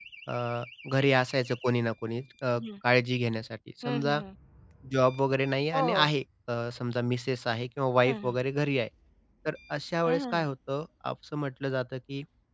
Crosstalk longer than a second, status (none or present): none